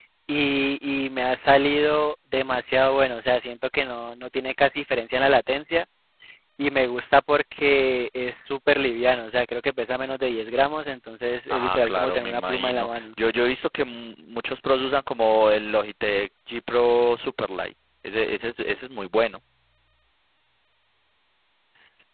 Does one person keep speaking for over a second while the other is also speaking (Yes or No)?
Yes